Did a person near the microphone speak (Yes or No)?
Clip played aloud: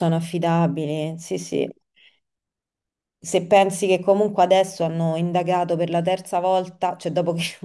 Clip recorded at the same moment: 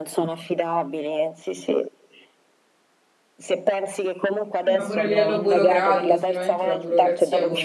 Yes